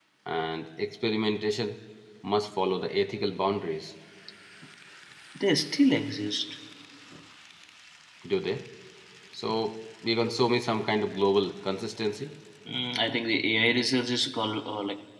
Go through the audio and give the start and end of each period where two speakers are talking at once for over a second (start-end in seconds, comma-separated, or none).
none